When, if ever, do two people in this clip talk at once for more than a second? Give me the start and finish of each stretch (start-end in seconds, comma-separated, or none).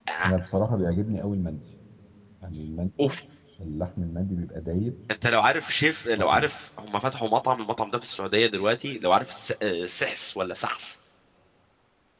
none